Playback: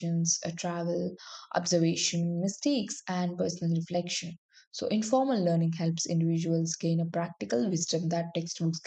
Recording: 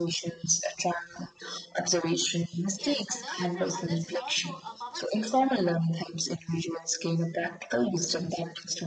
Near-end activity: present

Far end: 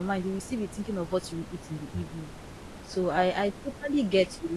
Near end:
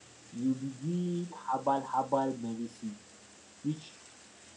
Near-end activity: present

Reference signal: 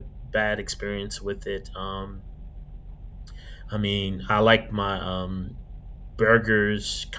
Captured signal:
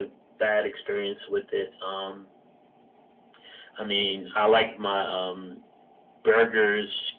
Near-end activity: none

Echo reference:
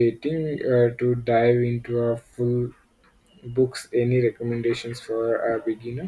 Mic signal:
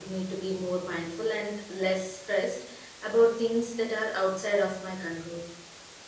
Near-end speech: present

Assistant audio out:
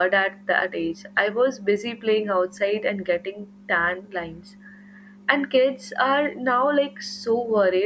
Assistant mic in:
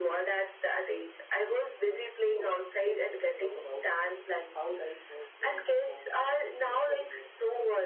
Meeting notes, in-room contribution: present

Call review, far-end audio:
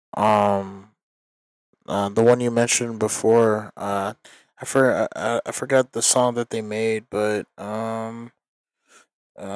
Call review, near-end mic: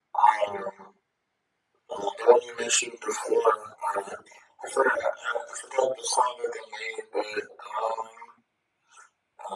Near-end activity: none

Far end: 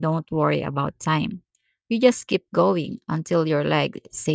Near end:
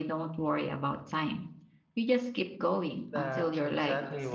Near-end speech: present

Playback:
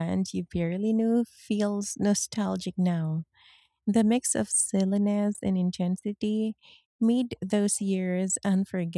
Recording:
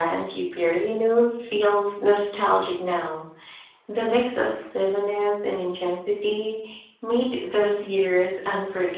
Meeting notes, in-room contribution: none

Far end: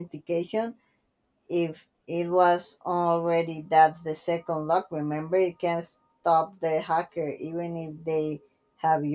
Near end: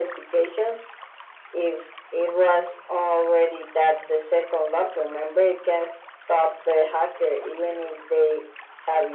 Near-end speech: none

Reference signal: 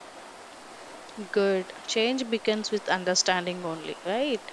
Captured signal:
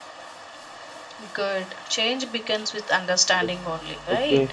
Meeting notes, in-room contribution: present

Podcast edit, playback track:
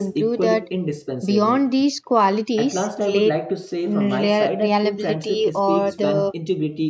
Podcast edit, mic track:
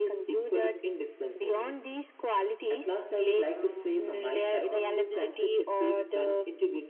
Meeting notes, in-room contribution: present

